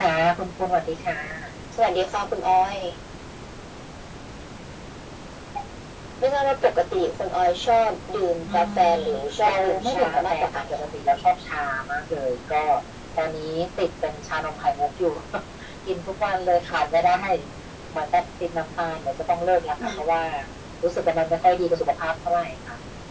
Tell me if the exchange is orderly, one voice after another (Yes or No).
No